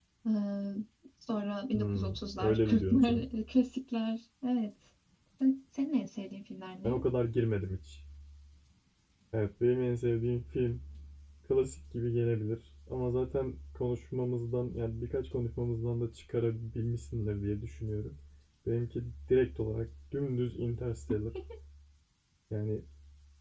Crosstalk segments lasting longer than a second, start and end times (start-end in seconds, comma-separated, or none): 1.7-3.2